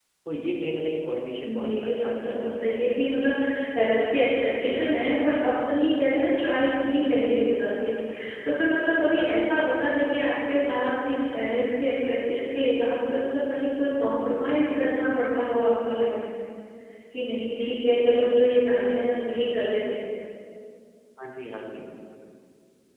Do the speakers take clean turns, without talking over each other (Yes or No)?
No